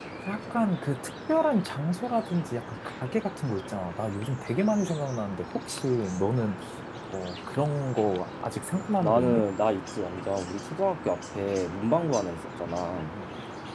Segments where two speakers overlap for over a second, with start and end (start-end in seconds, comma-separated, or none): none